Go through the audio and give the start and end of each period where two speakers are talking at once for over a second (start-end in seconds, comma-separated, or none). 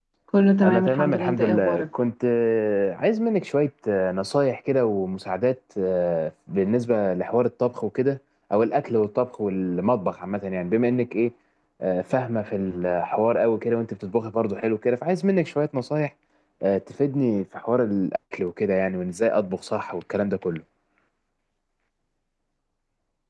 0.6-1.8